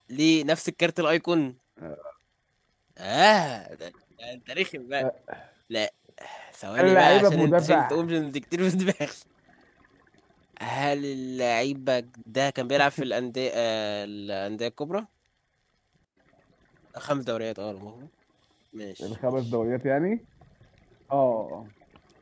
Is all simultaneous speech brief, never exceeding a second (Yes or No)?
No